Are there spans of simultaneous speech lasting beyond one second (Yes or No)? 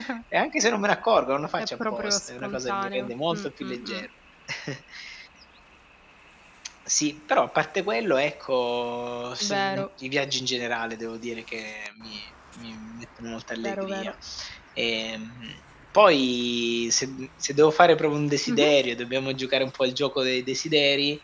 Yes